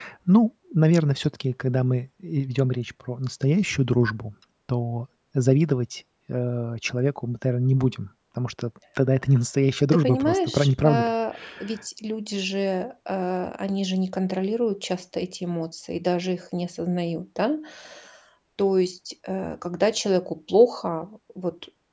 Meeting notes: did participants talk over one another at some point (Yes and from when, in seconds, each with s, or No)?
Yes, from 9.9 s